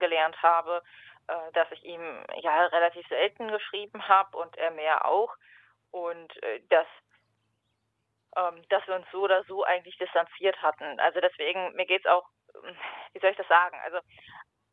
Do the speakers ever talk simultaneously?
No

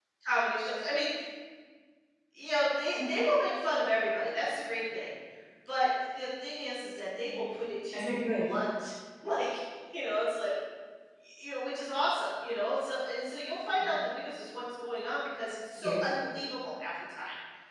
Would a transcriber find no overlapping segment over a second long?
Yes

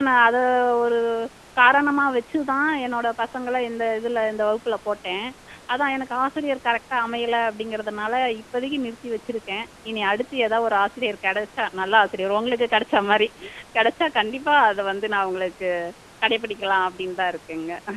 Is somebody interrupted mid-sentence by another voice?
No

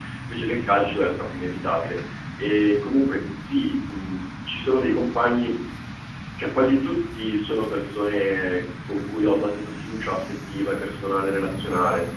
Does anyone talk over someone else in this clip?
No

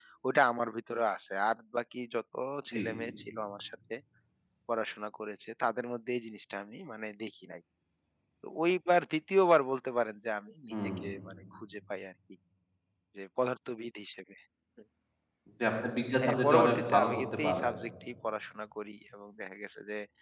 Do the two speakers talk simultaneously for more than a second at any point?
Yes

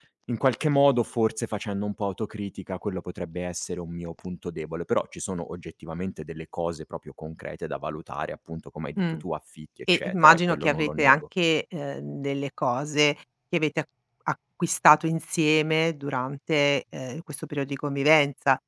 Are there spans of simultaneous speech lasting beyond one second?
Yes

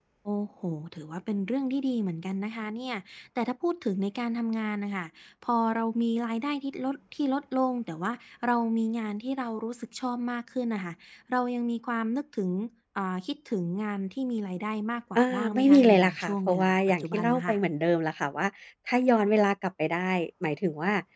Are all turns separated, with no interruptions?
No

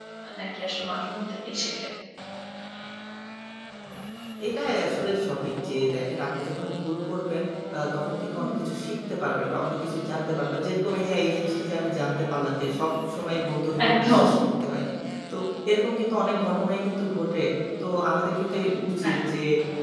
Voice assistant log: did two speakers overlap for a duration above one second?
No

